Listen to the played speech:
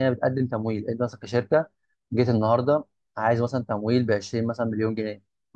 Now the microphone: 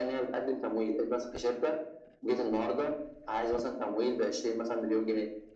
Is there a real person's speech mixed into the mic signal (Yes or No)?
No